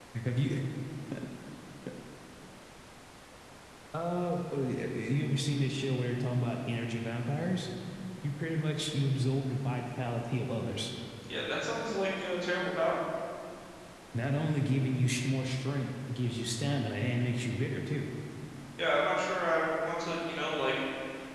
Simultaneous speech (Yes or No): No